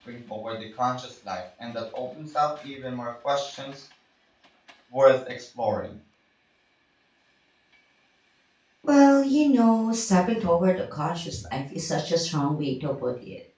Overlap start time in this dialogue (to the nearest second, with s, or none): none